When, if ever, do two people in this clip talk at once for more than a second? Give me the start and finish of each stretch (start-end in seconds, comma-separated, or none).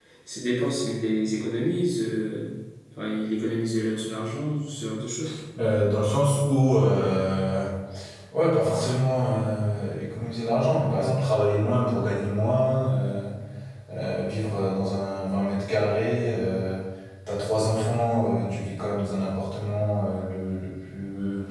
none